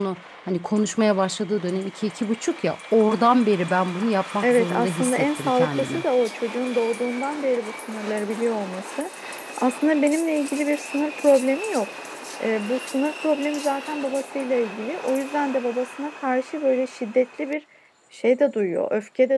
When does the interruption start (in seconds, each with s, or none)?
4.4 s